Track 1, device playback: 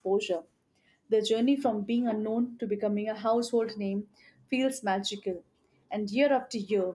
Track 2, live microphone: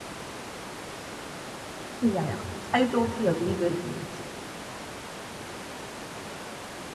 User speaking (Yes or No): Yes